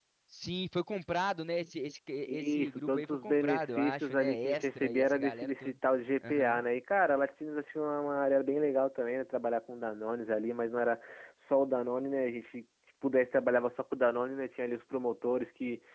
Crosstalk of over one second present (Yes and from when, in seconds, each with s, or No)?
Yes, from 2.3 s